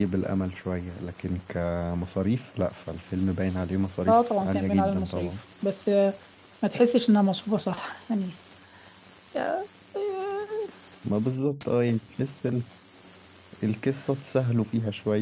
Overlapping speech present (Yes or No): Yes